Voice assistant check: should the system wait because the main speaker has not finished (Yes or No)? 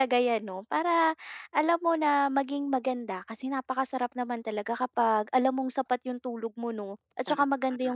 Yes